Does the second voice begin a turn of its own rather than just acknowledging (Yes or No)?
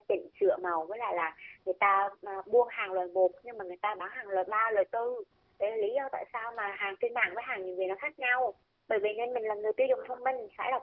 No